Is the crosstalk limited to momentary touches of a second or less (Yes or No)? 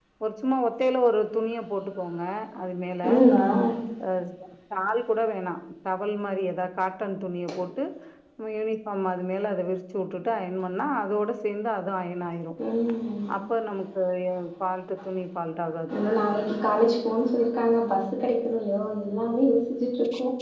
Yes